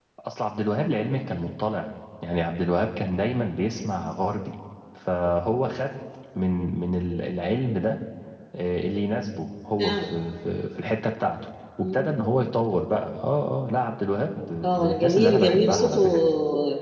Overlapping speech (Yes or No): Yes